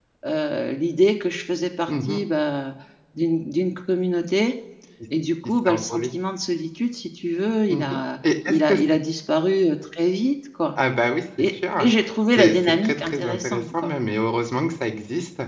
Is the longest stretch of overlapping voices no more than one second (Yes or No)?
No